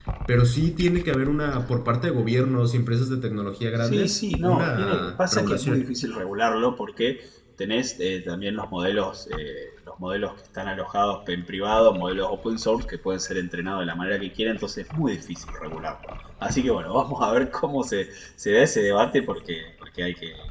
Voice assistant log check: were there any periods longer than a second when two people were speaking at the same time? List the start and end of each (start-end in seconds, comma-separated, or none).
3.8-5.8